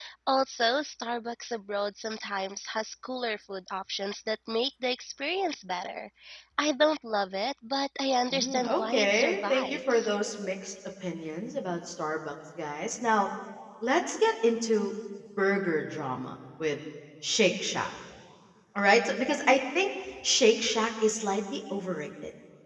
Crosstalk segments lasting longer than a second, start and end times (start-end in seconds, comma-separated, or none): 8.3-10.2